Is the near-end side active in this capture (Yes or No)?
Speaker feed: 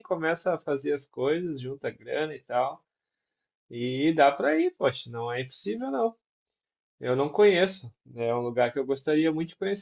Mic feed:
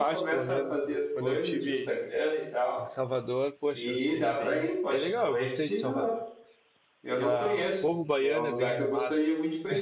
Yes